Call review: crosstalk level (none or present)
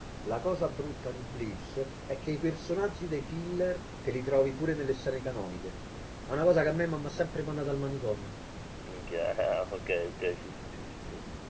none